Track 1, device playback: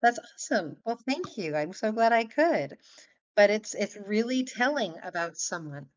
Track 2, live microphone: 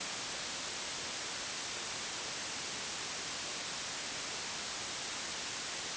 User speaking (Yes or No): No